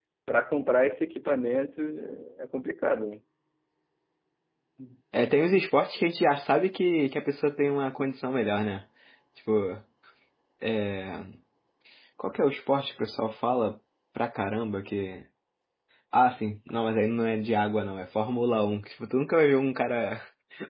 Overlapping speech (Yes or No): No